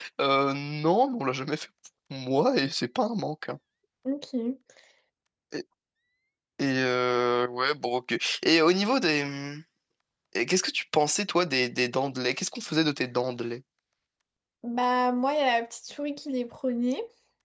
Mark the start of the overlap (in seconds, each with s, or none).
none